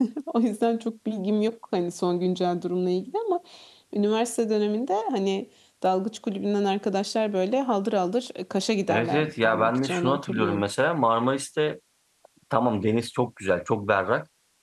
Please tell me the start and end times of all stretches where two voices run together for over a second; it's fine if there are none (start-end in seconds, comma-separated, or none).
8.9-10.6